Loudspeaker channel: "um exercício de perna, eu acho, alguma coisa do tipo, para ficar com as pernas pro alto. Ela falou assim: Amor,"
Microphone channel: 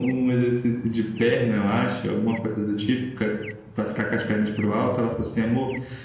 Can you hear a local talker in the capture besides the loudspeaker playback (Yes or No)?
No